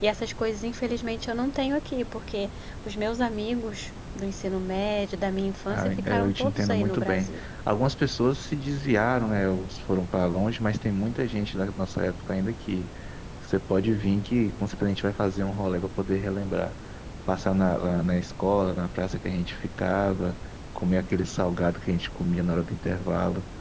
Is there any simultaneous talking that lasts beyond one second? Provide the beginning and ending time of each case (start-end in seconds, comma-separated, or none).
5.7-7.5